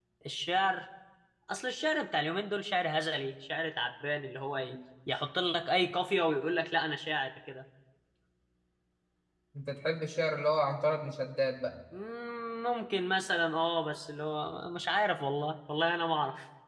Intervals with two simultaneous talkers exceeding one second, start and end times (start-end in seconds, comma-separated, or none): none